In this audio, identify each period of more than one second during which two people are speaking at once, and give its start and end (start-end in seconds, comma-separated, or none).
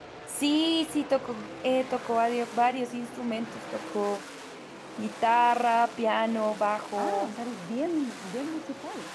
none